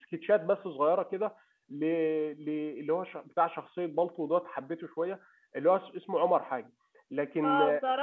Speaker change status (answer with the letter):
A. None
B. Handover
B